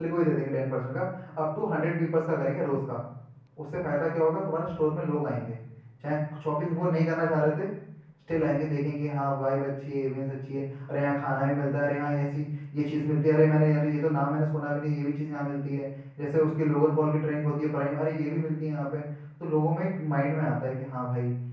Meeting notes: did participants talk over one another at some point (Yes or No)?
No